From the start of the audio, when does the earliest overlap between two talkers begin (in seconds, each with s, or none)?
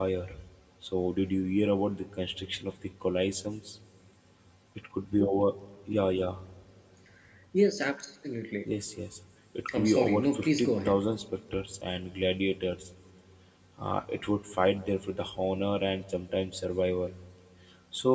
9.7 s